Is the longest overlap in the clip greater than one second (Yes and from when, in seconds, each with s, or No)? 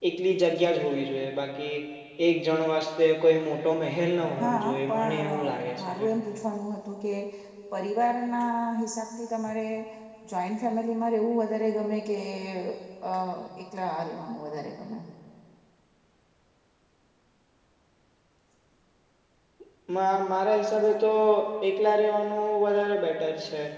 Yes, from 4.2 s